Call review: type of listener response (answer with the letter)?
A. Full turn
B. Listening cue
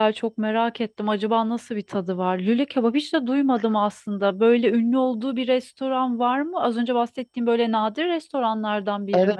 A